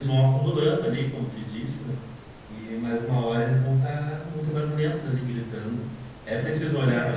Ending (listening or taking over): listening